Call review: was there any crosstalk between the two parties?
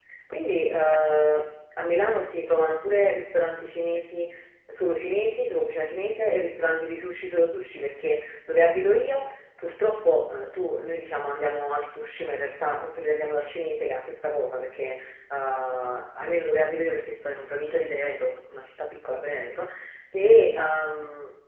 No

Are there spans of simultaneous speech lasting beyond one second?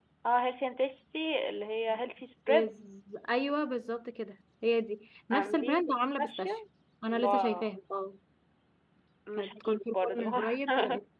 Yes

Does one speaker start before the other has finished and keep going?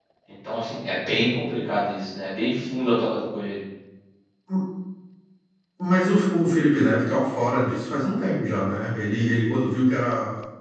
No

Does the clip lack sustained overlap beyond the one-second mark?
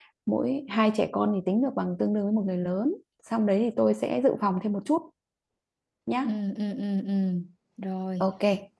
Yes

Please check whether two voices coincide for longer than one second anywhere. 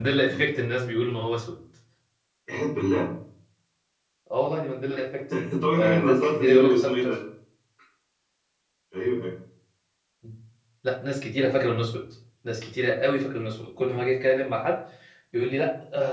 Yes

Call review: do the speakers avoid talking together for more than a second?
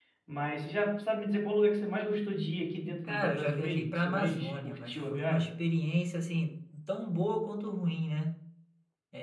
No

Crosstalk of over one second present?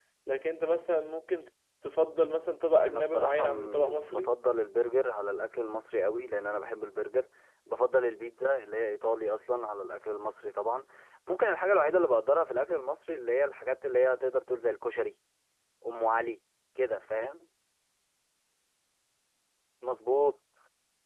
Yes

